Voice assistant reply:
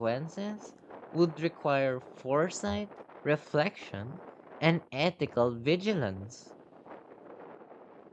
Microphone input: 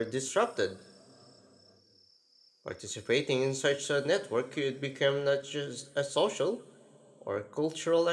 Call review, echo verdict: none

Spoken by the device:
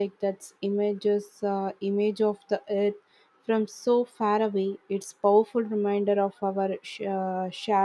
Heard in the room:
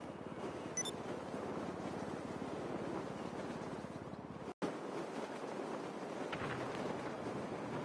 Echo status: none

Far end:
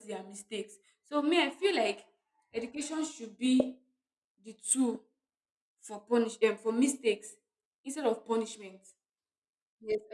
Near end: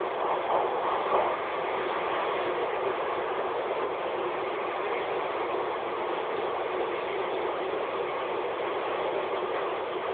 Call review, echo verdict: none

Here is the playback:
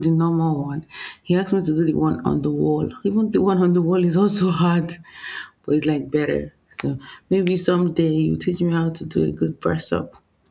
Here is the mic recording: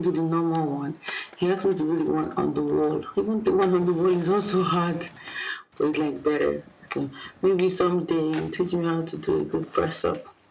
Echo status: present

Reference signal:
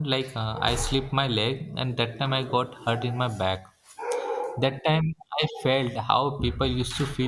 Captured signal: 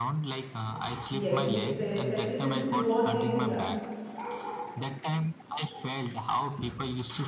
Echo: present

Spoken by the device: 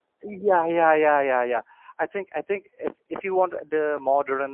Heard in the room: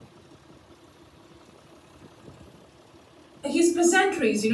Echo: none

